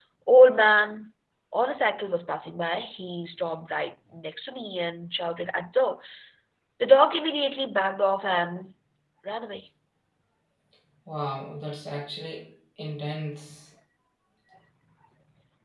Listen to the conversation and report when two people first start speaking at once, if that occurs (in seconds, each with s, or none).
none